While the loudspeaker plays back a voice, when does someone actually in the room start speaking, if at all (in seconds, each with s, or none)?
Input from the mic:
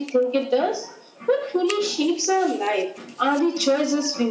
none